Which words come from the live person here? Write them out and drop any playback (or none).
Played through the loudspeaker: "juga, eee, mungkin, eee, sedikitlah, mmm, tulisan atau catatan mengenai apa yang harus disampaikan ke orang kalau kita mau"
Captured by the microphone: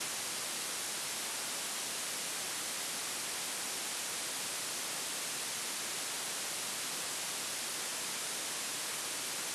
none